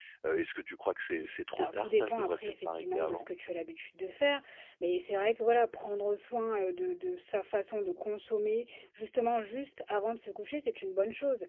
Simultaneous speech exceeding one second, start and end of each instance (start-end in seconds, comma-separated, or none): 1.6-3.3